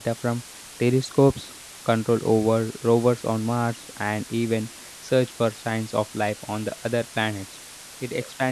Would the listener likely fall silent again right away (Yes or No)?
Yes